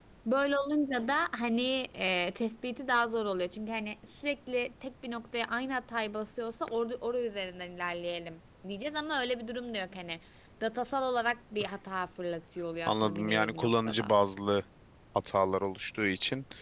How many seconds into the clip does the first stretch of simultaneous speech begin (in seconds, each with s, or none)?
12.9 s